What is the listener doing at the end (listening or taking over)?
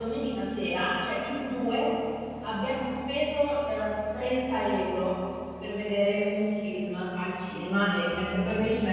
listening